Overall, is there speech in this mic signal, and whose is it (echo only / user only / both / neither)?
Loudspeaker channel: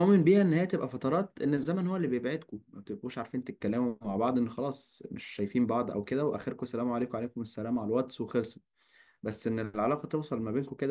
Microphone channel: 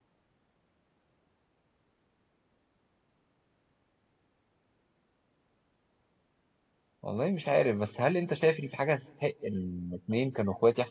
user only